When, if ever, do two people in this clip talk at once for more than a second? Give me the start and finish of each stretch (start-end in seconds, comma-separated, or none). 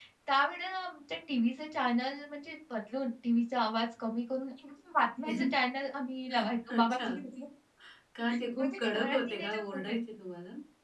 8.6-9.9